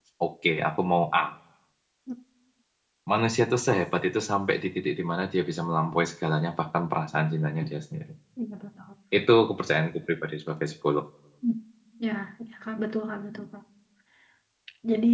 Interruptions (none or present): none